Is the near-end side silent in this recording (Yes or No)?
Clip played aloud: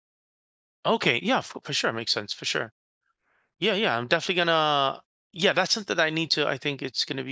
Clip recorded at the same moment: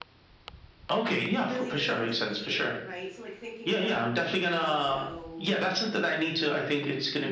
No